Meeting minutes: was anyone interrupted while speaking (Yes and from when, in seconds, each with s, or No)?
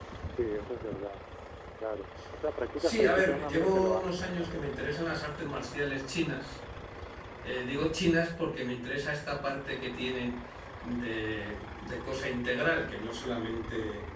Yes, from 2.8 s